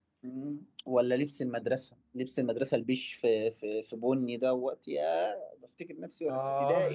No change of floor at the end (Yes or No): No